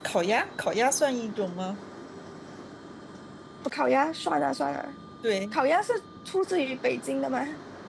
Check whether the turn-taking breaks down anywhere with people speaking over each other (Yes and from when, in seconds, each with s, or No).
No